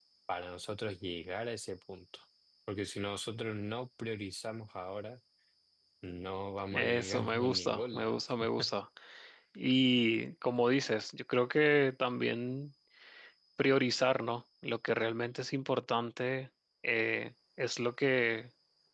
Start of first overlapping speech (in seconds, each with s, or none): 6.7 s